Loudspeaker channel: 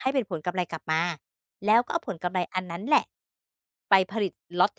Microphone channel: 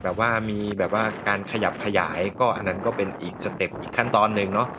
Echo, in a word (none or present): none